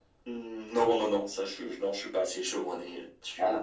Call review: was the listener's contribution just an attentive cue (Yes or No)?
No